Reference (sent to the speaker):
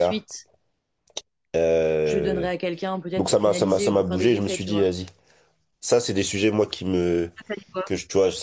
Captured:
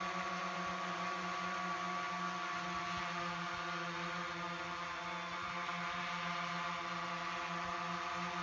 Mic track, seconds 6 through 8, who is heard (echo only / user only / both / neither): neither